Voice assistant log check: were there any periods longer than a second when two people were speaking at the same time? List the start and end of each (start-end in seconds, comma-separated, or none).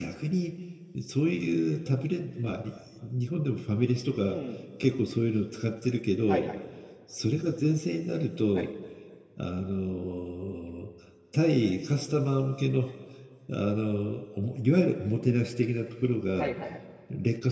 none